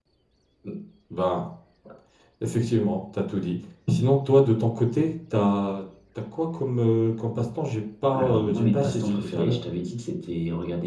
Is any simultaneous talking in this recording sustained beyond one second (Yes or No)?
Yes